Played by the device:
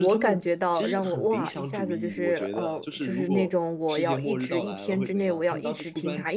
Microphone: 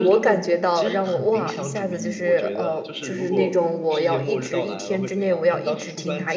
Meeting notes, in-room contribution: none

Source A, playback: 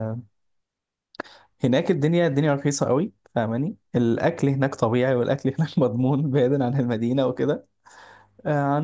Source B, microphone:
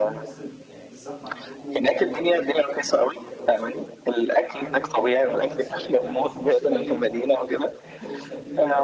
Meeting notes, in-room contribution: present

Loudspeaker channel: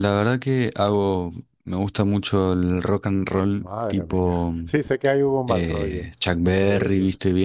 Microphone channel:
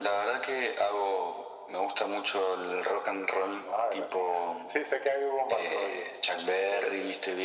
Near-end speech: none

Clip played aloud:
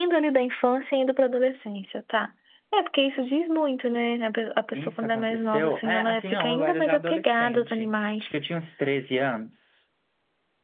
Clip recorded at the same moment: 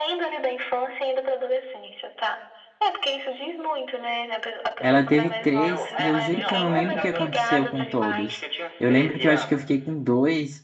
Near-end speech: present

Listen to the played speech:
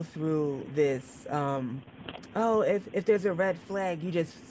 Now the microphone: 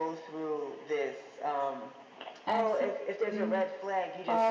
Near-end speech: present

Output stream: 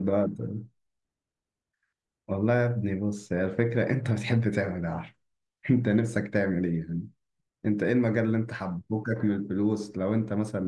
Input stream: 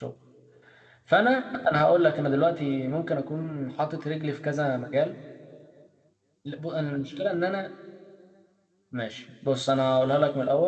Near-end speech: present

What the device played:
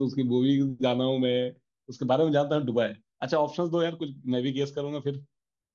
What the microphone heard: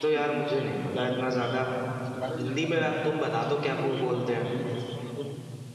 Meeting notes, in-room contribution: present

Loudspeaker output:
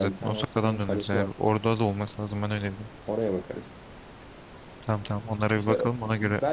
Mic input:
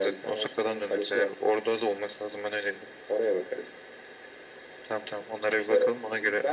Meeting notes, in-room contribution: none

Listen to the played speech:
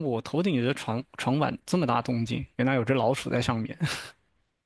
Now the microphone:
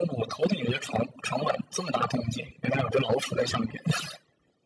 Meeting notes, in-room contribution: none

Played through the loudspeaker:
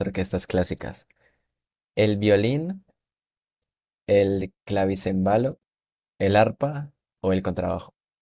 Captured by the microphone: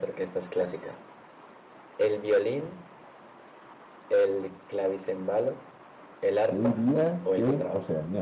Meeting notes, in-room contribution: present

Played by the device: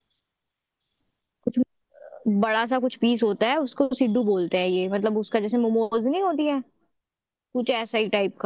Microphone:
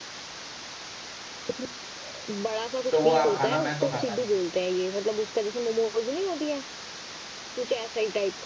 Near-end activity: present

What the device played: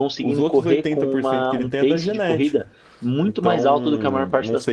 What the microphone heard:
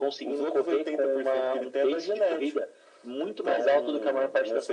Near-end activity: none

